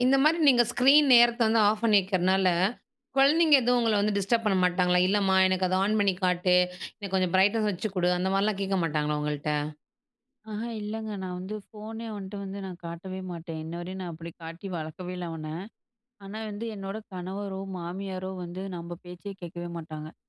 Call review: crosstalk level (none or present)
none